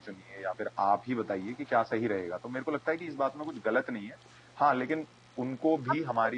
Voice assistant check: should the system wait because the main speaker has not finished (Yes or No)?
Yes